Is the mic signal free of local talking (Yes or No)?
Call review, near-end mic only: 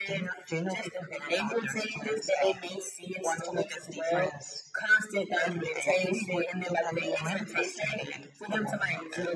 Yes